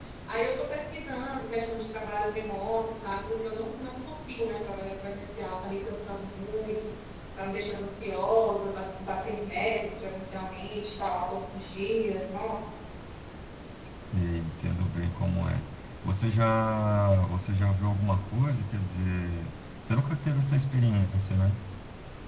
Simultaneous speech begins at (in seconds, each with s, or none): none